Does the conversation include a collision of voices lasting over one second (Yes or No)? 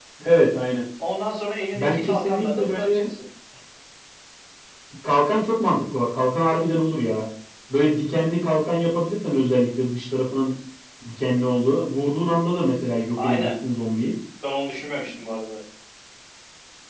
Yes